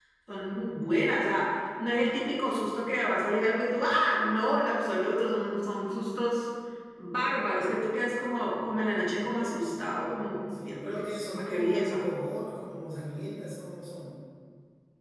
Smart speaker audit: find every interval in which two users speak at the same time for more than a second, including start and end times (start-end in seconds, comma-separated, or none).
10.6-12.0